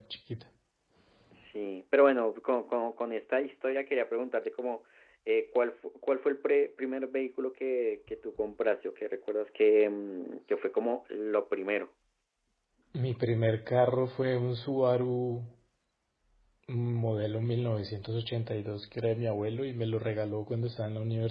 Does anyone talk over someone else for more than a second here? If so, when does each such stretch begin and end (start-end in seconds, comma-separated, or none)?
none